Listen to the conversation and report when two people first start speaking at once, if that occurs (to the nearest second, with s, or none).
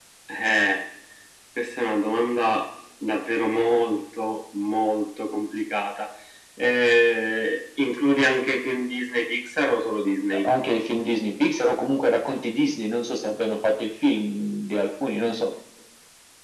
none